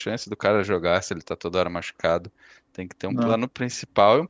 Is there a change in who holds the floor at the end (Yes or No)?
No